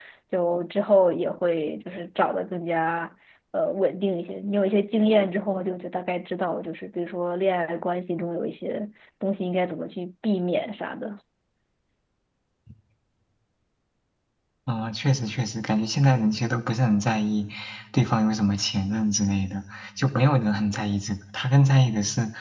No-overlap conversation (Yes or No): Yes